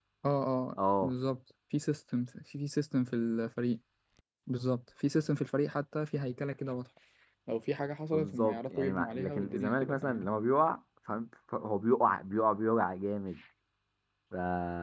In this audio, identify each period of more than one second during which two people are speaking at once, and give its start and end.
8.1-10.2

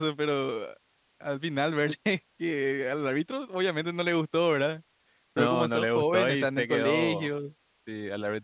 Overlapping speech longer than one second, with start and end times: 5.4-7.3

